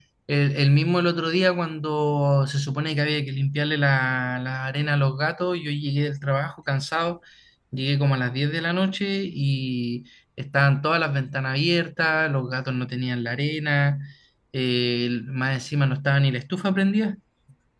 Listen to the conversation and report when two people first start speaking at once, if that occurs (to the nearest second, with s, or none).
none